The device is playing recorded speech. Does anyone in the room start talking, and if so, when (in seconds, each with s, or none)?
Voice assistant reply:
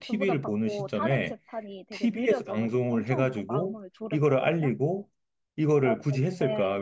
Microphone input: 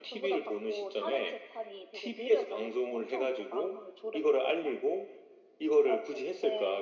none